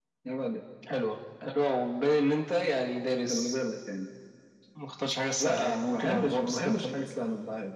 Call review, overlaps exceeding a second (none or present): present